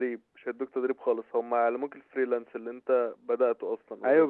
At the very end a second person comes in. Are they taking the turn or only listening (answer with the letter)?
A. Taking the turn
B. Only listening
A